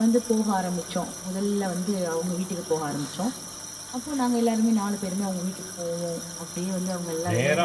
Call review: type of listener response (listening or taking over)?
taking over